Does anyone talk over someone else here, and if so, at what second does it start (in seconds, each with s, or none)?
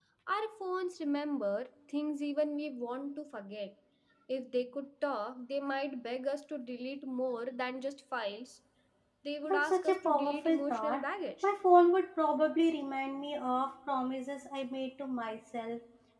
9.4 s